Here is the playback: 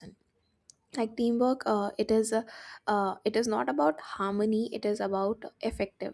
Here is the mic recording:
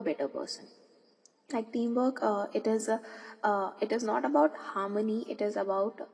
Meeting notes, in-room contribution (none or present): none